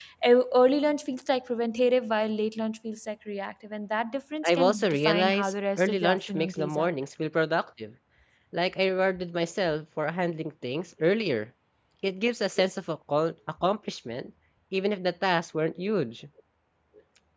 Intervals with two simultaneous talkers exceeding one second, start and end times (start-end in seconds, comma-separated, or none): 4.5-6.9